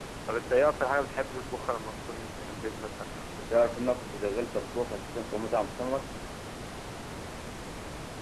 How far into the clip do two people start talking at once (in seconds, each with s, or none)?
none